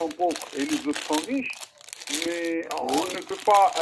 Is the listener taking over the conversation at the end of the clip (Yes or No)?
No